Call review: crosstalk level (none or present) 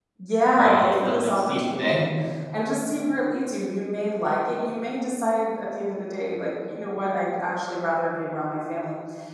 present